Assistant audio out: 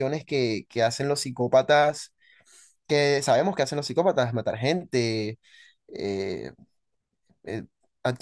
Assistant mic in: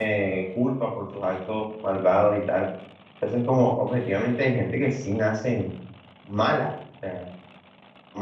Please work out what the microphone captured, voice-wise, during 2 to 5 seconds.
user only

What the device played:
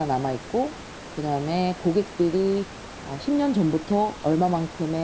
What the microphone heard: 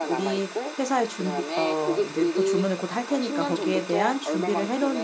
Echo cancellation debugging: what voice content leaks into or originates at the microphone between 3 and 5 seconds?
both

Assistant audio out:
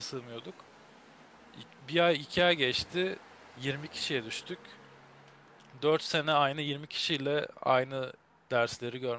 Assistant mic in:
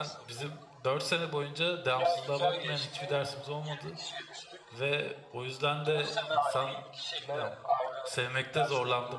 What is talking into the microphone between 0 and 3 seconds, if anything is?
both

